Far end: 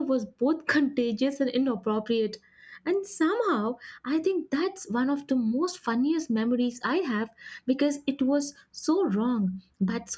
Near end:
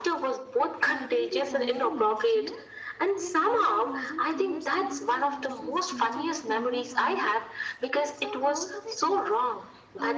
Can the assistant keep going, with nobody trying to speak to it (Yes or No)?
No